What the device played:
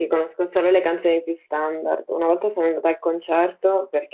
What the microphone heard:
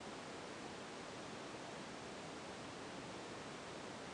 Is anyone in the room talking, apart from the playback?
No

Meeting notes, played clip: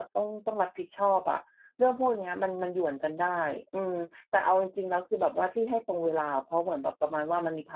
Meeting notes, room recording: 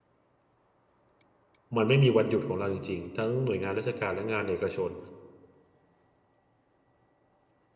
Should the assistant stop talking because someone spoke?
Yes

